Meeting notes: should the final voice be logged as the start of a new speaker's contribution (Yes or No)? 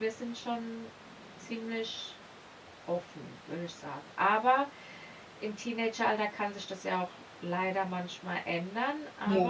No